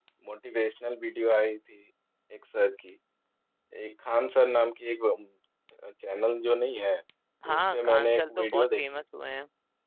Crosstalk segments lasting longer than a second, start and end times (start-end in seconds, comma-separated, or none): 7.5-8.8